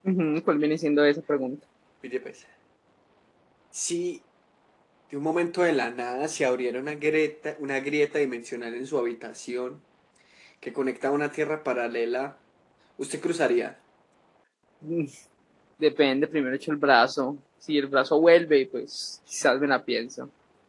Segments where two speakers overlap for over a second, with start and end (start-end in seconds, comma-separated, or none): none